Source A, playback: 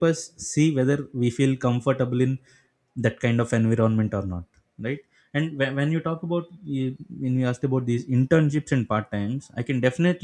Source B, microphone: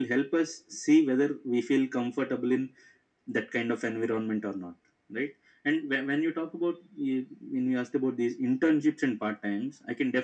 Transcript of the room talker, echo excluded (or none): none